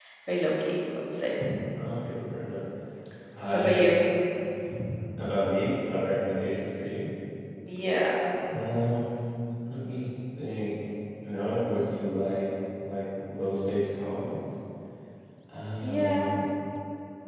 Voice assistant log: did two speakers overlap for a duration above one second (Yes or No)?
No